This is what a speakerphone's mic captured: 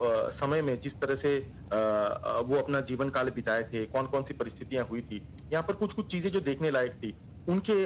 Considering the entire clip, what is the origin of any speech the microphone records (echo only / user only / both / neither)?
echo only